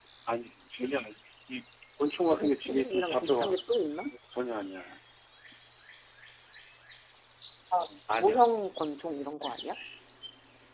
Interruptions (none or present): present